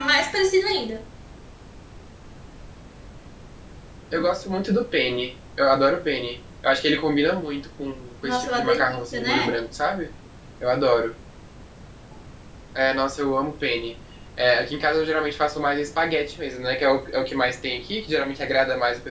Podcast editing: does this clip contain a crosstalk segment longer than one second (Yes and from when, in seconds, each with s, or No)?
Yes, from 8.2 s